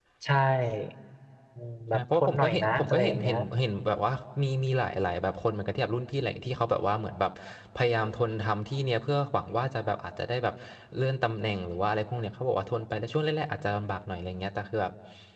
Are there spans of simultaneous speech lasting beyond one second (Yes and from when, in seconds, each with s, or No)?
Yes, from 1.9 s